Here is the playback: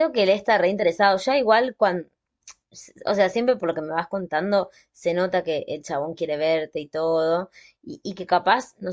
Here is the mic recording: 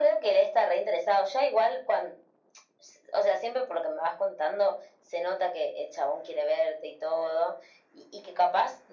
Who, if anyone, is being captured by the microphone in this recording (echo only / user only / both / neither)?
echo only